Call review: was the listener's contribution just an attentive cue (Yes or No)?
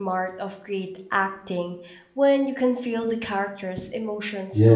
No